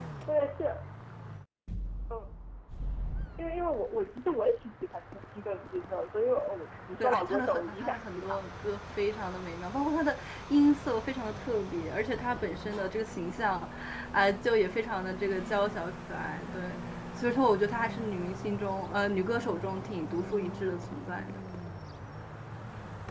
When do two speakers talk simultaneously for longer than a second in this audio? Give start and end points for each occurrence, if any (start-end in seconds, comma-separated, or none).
7.0-8.3